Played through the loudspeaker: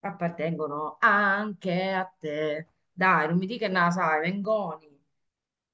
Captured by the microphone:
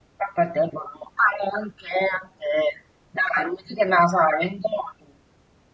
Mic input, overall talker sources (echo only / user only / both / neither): echo only